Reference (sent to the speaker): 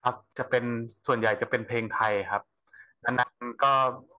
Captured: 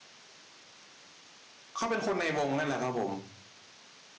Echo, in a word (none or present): none